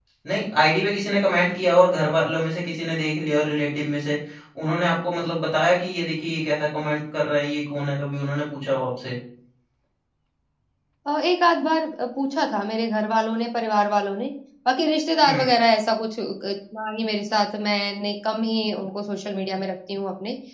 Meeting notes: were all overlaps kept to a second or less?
Yes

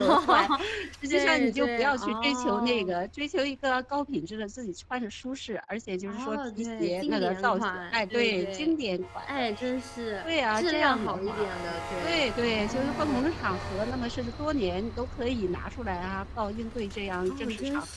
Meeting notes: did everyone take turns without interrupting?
No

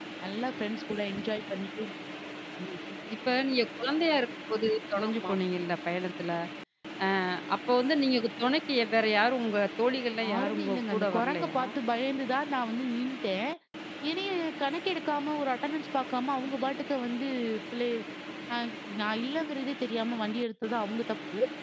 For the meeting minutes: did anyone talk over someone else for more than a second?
Yes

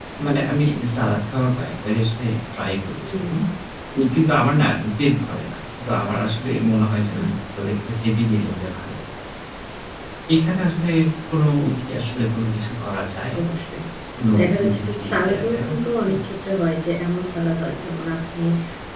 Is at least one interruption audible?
Yes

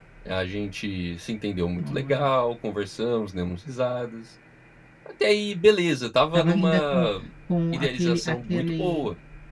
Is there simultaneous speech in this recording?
Yes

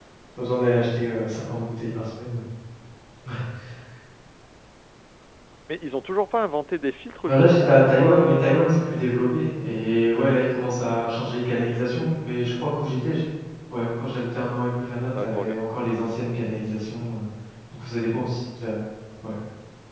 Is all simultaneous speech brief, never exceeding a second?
No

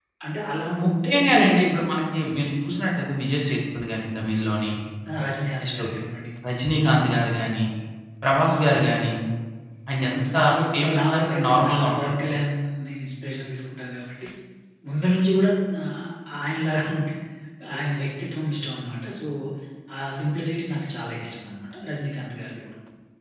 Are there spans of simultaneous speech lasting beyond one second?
Yes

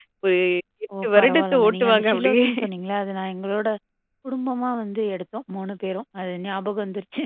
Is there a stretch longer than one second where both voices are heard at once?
Yes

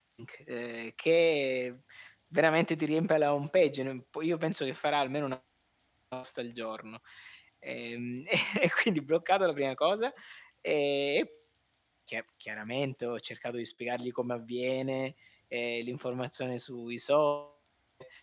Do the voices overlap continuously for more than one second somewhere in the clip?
No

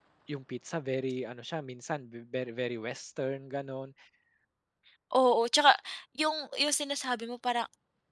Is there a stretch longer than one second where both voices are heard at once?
No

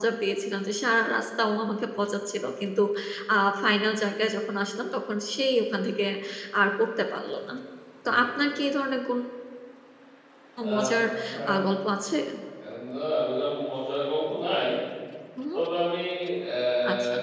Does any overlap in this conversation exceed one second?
No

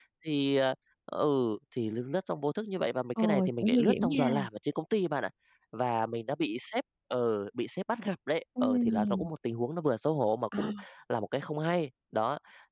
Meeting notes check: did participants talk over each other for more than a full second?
Yes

